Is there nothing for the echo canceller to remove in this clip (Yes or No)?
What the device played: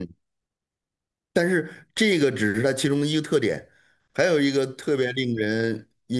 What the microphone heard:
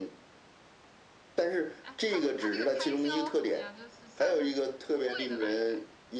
No